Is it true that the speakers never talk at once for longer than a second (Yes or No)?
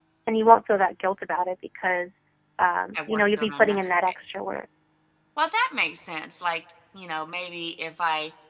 No